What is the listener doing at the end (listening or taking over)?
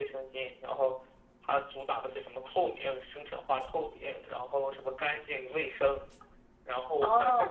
taking over